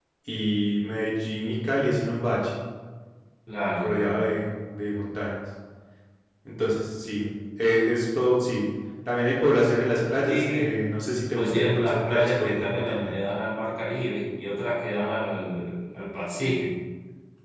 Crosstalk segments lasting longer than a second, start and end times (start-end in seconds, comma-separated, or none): 11.3-13.2